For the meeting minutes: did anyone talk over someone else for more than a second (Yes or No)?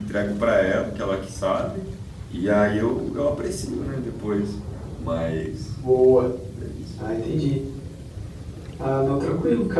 No